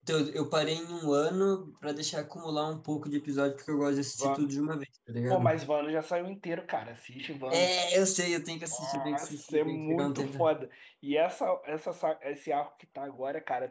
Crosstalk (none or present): present